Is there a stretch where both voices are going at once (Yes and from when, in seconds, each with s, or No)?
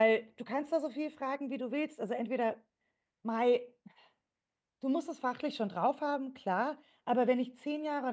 No